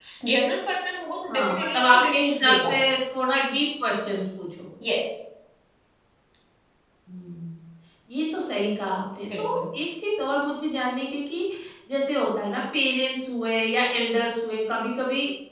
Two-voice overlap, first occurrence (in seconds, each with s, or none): 1.3 s